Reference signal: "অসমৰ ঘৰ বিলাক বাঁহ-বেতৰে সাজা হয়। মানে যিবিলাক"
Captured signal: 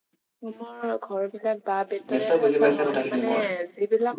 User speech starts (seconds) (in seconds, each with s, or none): 2.1 s